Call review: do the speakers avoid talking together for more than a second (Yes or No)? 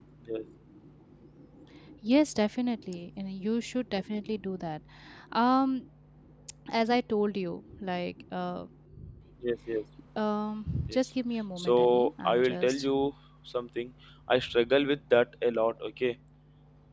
No